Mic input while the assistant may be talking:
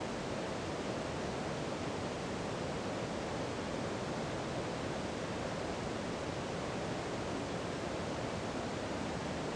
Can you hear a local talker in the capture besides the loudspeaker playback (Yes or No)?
No